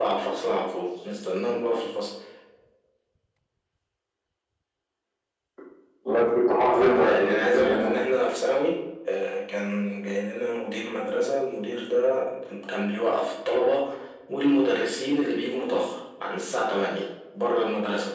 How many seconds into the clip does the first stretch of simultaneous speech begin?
7 s

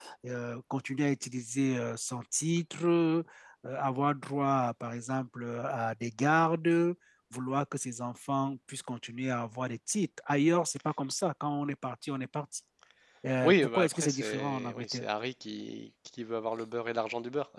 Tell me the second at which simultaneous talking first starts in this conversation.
13 s

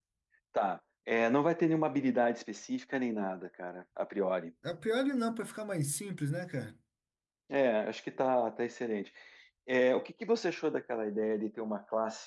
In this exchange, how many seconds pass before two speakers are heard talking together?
none

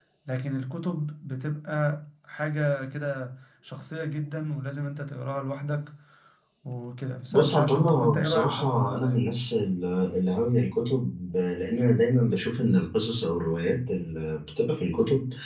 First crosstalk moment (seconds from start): 7 s

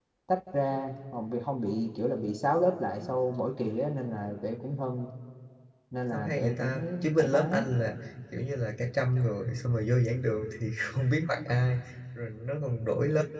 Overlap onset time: 6 s

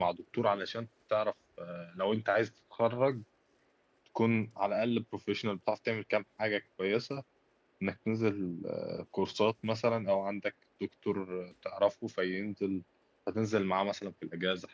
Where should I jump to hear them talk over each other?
none

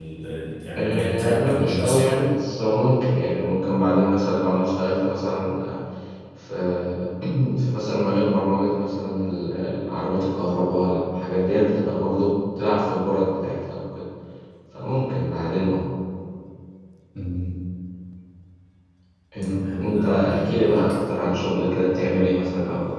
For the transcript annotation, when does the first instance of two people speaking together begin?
1 s

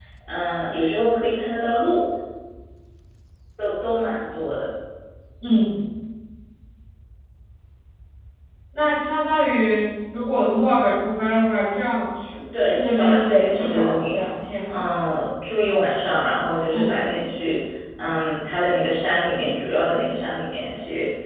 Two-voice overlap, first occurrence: 13 s

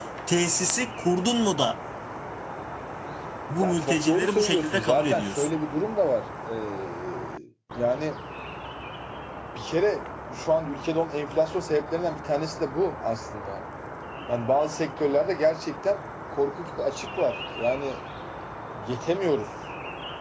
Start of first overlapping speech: 4 s

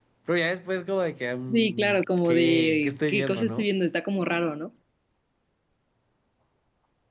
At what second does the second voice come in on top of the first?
1 s

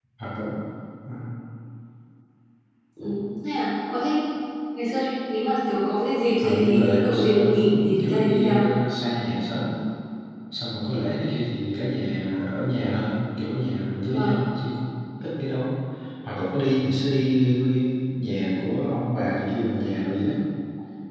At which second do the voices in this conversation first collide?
6 s

